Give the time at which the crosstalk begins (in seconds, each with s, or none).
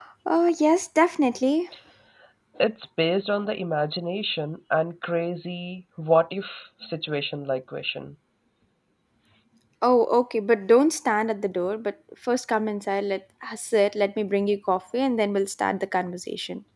none